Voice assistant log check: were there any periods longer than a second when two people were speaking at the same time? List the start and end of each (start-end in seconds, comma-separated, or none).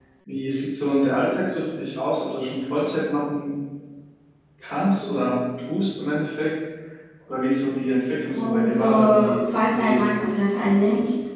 8.3-10.0